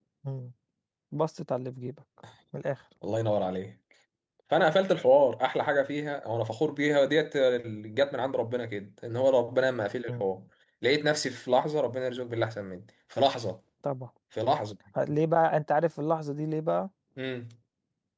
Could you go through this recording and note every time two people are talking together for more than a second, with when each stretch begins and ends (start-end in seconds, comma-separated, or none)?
none